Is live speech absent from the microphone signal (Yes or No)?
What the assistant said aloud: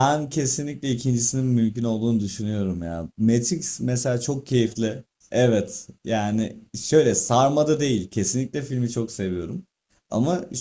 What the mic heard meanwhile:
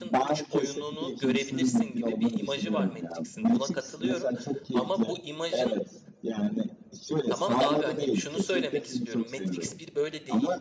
No